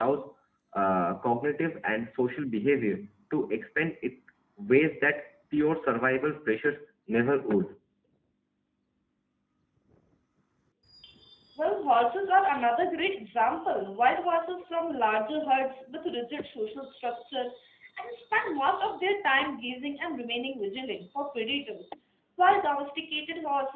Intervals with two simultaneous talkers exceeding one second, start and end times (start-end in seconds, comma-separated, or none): none